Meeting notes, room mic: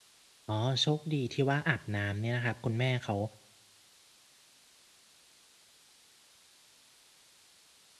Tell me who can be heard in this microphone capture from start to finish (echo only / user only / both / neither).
user only